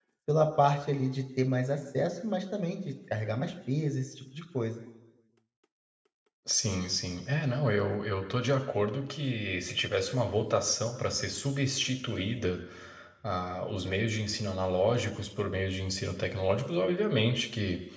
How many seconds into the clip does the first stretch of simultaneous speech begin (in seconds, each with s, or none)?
none